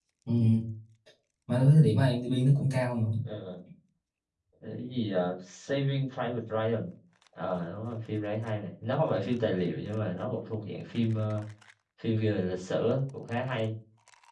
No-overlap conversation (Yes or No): Yes